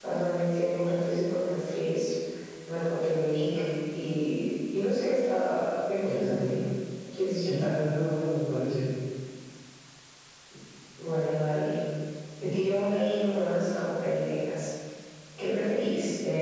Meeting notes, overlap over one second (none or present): none